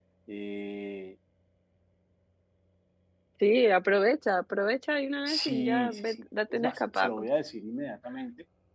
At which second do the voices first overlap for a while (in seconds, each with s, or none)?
5.3 s